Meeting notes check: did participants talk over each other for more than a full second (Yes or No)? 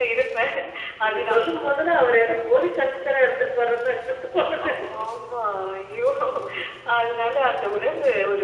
No